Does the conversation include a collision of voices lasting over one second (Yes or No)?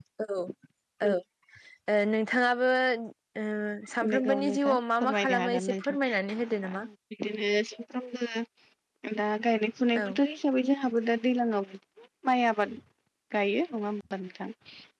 Yes